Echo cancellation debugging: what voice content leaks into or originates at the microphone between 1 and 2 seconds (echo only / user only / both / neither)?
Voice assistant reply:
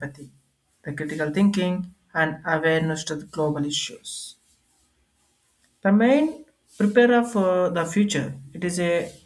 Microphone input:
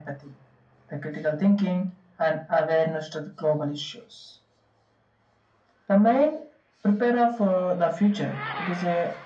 echo only